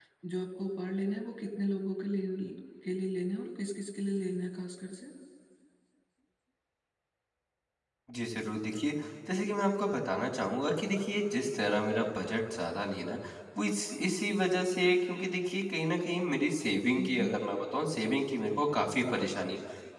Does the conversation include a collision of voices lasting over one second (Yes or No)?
No